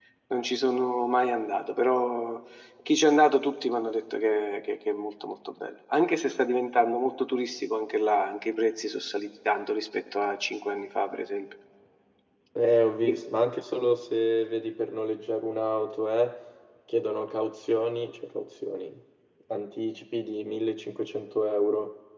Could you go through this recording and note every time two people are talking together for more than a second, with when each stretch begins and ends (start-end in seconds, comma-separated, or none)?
none